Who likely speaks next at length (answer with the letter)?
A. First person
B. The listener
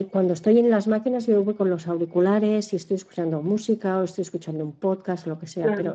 A